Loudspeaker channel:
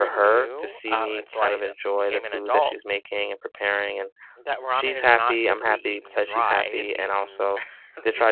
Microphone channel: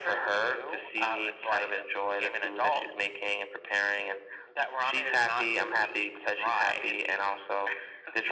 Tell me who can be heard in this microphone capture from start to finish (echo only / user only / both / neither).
echo only